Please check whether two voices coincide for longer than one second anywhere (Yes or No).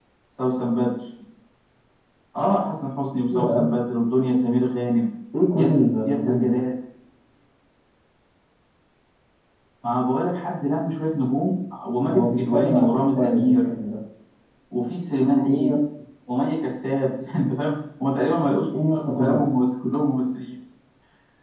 Yes